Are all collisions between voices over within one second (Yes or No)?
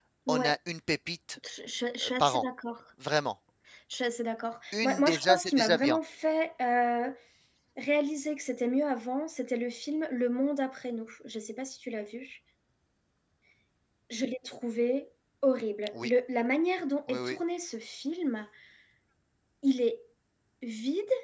No